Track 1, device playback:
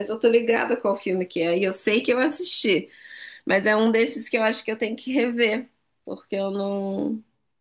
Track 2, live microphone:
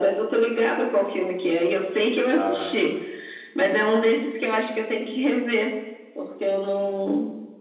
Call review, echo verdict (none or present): present